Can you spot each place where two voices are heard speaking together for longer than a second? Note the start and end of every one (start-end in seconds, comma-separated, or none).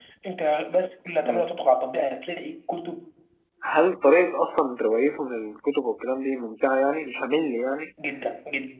none